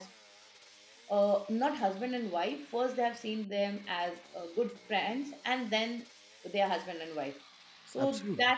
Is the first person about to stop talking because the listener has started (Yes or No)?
No